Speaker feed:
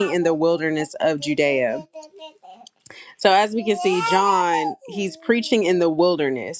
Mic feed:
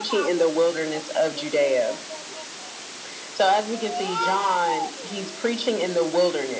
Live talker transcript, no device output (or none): none